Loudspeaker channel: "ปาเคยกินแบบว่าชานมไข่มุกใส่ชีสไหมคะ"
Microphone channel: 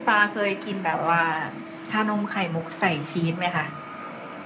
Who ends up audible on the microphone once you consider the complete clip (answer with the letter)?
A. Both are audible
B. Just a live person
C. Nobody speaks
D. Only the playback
D